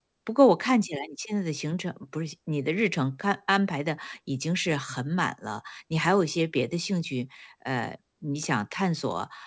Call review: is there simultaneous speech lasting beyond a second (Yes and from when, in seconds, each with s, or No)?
No